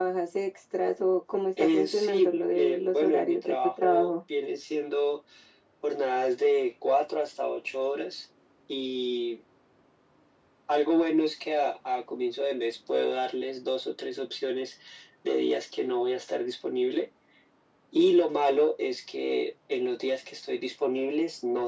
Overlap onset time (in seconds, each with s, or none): 1.6 s